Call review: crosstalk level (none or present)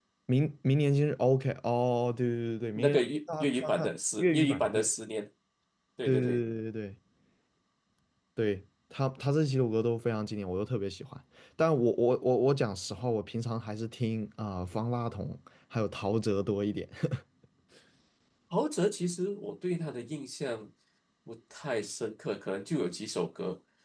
present